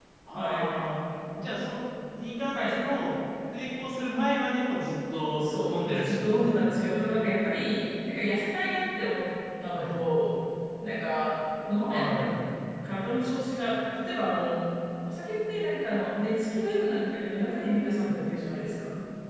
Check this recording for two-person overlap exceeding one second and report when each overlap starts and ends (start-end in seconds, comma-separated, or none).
5.4-6.7